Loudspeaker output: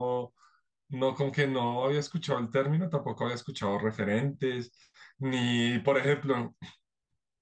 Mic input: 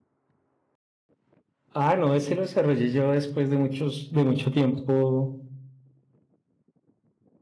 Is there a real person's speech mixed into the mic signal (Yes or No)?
Yes